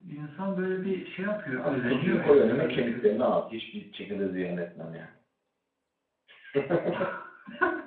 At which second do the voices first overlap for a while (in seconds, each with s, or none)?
1.6 s